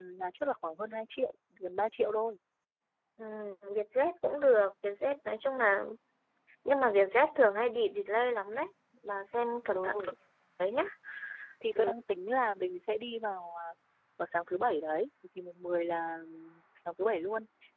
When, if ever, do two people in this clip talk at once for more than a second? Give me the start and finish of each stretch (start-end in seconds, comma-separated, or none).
none